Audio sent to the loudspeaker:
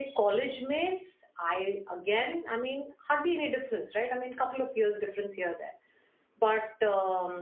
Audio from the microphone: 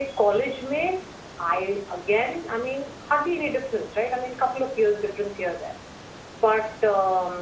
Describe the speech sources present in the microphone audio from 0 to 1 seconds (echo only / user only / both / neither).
echo only